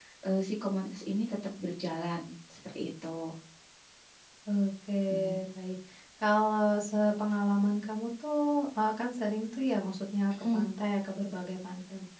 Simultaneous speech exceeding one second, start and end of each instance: none

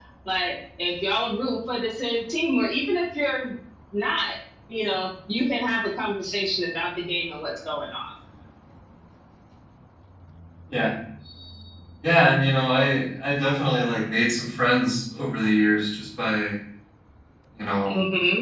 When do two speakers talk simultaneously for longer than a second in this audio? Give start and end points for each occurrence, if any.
none

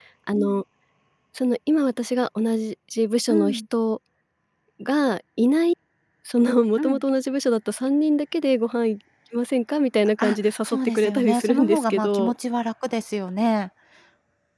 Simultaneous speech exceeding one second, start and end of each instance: 10.2-12.3

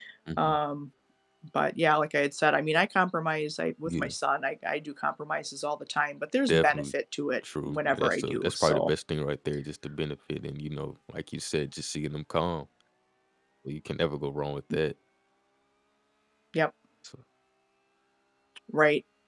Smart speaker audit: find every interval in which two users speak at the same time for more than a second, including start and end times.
7.7-8.9

